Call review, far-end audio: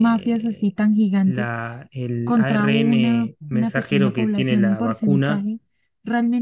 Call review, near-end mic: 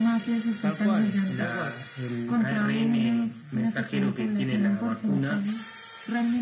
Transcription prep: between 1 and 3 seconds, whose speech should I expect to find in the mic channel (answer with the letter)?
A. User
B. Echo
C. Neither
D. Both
D